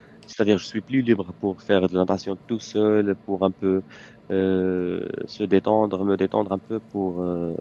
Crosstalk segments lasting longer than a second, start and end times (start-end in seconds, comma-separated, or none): none